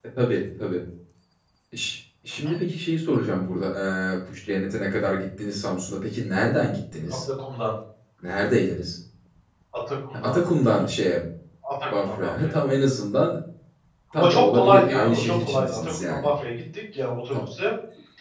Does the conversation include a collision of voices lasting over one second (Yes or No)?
Yes